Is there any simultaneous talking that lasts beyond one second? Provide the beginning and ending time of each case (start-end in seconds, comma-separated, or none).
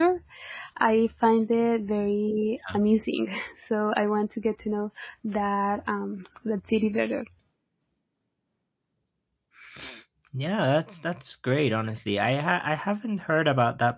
none